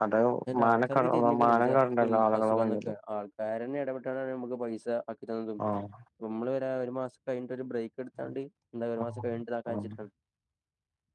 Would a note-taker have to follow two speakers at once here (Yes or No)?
Yes